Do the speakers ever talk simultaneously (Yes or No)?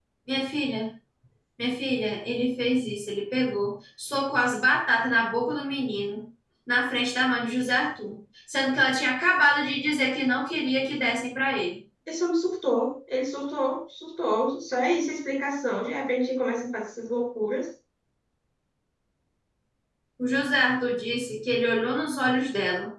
No